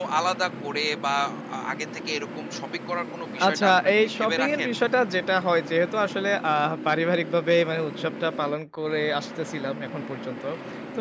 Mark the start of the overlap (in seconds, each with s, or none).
3.4 s